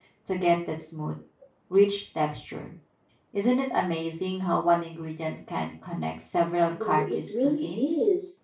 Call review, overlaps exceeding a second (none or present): present